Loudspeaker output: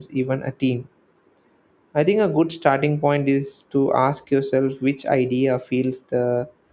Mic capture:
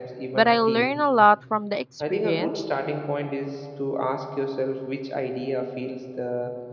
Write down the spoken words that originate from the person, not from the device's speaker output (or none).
But I learned a lot from the experience.